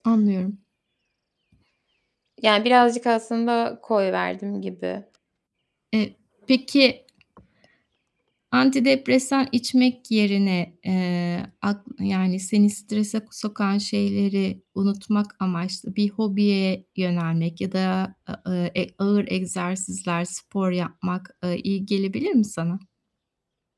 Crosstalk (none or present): none